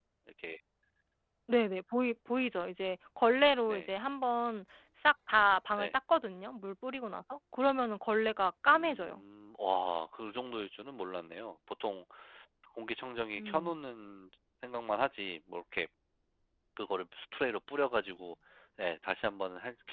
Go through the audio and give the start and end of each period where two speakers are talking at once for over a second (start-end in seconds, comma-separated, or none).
none